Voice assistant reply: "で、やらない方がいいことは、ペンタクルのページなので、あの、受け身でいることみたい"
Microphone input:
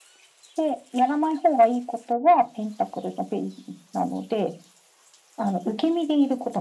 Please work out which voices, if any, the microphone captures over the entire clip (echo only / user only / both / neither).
echo only